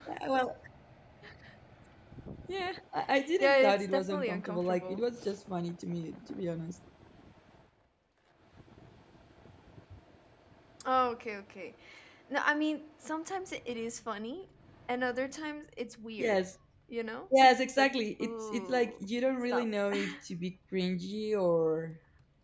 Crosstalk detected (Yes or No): Yes